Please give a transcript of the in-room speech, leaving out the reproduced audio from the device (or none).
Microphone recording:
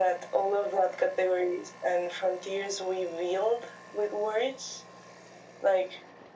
none